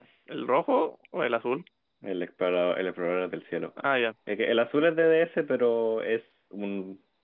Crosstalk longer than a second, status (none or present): none